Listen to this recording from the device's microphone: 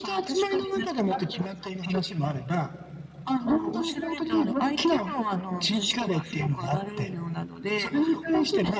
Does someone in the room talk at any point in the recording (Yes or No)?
No